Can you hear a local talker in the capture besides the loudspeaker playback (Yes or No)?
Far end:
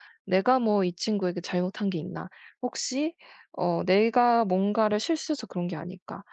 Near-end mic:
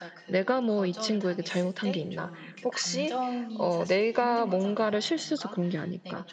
Yes